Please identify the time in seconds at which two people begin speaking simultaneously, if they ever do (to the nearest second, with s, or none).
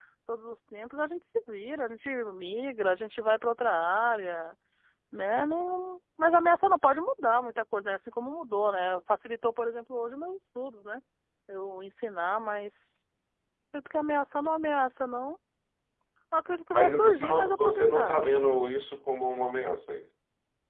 17 s